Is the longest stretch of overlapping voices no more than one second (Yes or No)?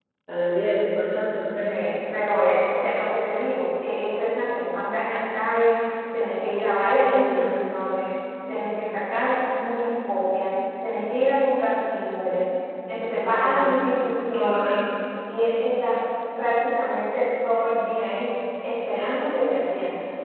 Yes